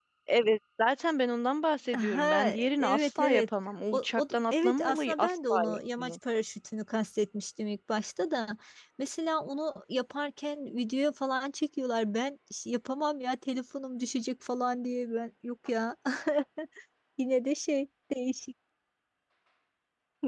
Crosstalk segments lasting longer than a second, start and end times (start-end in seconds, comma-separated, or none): 1.9-3.5, 3.9-5.5